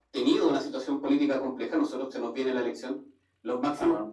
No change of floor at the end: Yes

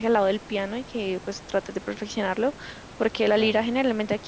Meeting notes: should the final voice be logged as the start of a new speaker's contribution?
No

